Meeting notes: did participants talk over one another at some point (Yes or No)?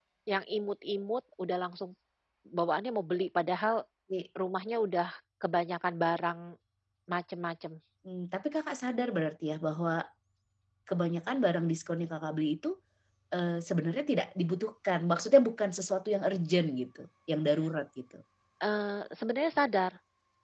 No